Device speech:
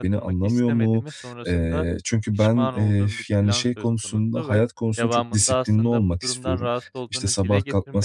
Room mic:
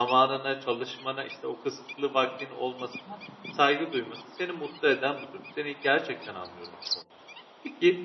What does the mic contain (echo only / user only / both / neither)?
user only